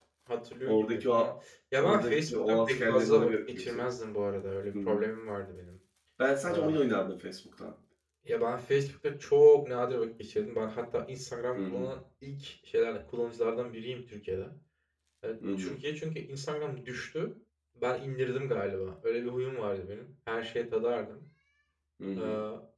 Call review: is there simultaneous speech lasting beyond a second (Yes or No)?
Yes